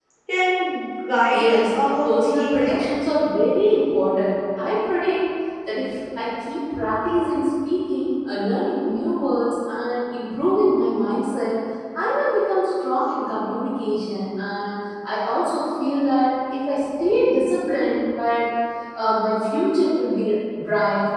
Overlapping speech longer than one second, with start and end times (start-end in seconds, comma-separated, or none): 1.2-2.8